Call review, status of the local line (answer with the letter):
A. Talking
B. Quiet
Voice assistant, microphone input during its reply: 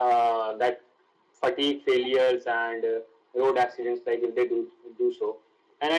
B